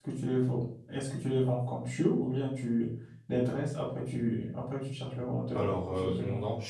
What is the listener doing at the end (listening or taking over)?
taking over